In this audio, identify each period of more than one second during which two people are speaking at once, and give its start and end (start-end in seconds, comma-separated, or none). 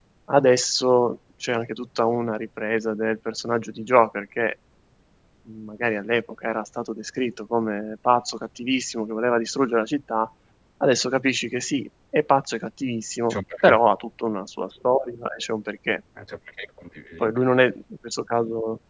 none